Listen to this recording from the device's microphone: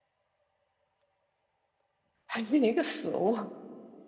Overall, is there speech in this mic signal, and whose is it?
user only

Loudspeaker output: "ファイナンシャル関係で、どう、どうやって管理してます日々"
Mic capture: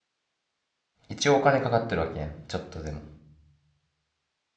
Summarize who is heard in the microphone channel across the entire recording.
user only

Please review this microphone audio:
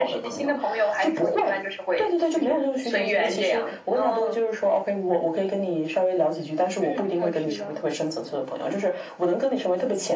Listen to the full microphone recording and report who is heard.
both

